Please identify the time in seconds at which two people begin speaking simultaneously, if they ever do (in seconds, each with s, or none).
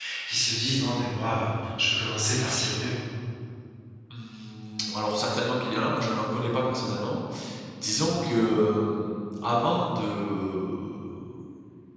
none